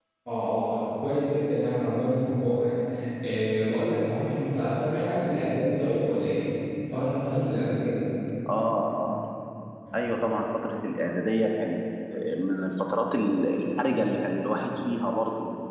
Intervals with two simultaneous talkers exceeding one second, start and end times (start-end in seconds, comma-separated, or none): none